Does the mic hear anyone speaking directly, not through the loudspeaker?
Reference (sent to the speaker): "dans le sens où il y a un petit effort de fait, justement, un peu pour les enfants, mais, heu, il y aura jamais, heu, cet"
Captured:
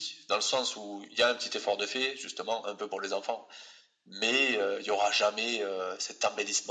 No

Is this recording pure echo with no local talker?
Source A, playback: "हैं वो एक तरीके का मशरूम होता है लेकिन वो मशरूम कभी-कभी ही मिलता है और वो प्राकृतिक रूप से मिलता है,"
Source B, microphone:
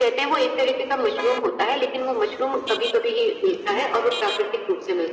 Yes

